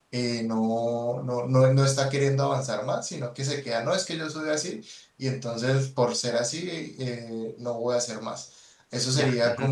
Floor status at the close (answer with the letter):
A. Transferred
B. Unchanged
B